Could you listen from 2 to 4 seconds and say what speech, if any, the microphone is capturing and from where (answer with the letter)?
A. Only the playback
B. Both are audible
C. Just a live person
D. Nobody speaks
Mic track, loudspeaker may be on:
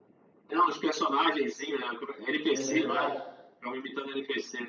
B